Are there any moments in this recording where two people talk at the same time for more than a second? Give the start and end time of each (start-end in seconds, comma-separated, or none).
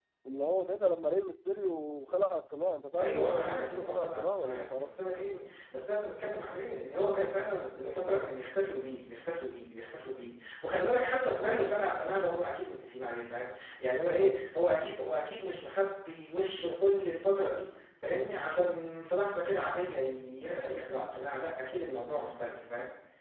3.0-4.9